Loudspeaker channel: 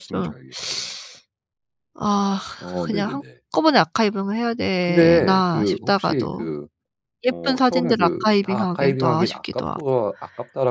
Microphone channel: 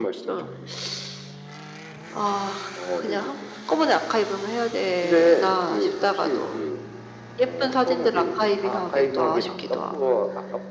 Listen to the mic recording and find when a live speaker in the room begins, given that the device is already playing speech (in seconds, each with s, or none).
none